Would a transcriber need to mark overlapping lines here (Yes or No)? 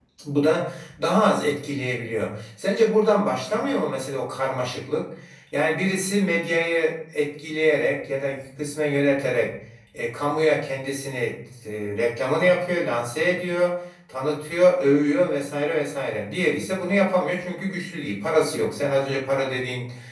No